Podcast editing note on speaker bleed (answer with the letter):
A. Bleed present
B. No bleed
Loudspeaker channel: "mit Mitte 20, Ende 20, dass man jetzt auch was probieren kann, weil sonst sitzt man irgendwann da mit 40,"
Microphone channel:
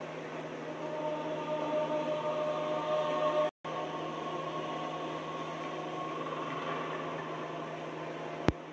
B